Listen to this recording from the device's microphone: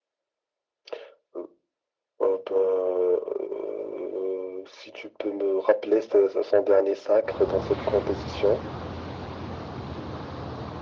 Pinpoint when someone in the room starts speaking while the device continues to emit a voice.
none

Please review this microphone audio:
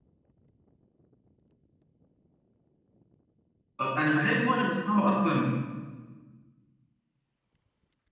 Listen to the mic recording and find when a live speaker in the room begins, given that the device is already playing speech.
3.8 s

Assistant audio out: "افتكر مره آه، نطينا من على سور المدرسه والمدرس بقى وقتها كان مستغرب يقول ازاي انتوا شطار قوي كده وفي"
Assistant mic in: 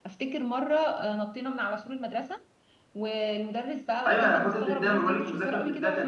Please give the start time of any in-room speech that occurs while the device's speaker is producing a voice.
4.1 s

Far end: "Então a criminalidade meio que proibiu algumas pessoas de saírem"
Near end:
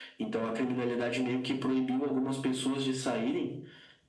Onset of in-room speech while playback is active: none

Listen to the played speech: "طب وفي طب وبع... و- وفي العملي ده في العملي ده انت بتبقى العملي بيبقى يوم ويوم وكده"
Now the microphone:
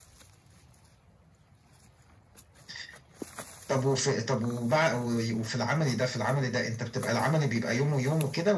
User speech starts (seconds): none

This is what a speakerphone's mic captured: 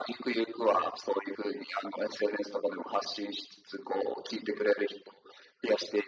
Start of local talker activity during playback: none

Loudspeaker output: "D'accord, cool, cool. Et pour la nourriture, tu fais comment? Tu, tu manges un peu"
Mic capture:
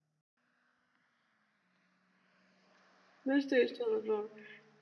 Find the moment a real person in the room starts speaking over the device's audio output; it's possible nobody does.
3.2 s

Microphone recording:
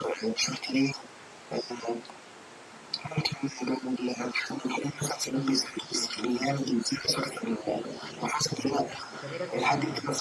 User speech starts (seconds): 8.5 s

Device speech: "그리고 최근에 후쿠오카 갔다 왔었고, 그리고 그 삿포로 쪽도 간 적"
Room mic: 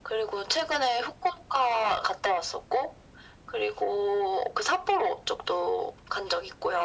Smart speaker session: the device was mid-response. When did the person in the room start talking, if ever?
none

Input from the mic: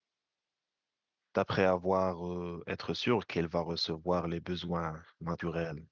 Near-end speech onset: 1.3 s

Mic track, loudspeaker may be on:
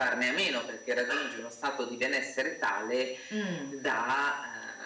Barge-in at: 3.3 s

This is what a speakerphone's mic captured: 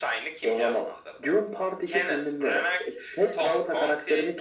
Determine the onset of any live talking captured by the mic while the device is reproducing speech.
none

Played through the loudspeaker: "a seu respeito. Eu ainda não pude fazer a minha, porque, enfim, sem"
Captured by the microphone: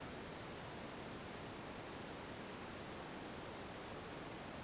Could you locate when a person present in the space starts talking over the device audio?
none

